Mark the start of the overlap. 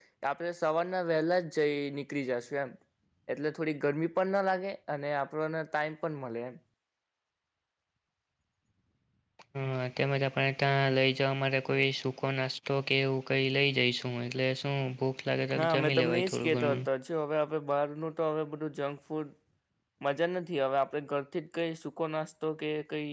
15.5 s

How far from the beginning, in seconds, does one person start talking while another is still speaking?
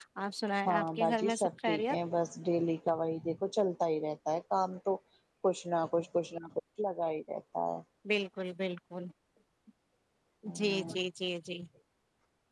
0.7 s

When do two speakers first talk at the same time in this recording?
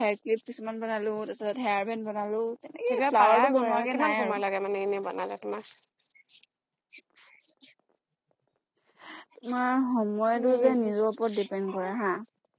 2.9 s

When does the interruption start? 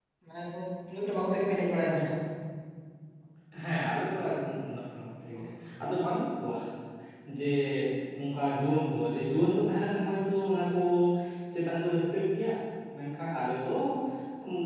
none

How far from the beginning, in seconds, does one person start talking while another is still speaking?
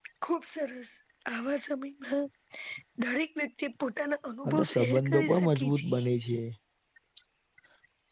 4.5 s

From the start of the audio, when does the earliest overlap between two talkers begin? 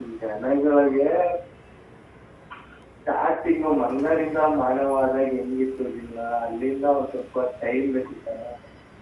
none

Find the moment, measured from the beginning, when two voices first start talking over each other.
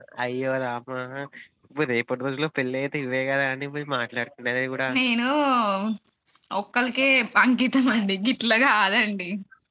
none

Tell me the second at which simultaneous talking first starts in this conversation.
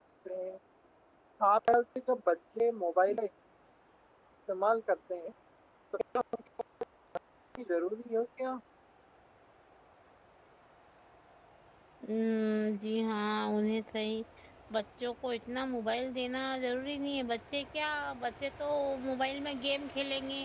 none

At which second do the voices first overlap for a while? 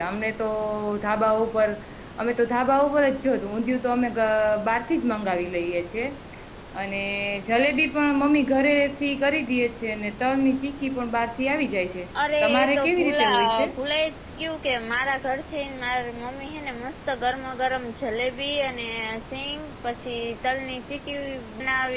12.4 s

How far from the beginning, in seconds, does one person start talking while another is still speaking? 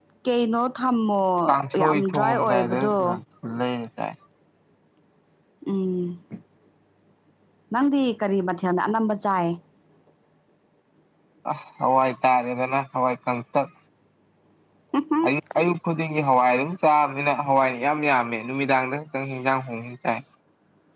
1.5 s

